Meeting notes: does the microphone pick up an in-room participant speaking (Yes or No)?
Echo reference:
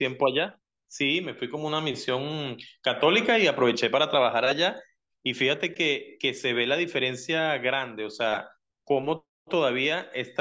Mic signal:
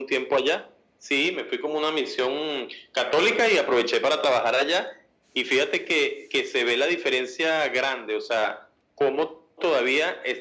No